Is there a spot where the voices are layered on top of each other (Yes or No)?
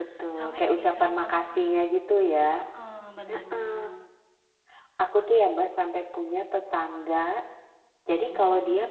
Yes